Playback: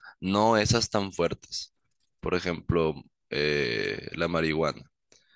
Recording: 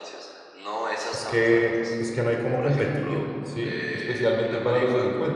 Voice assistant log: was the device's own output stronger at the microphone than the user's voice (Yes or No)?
No